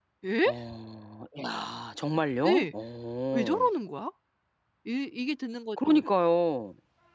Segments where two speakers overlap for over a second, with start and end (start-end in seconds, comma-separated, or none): none